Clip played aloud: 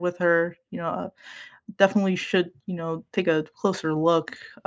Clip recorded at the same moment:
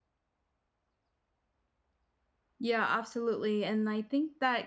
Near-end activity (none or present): present